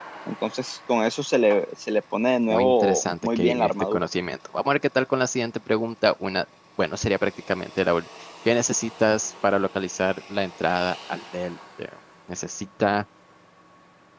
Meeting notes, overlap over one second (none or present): present